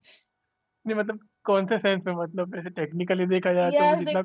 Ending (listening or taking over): taking over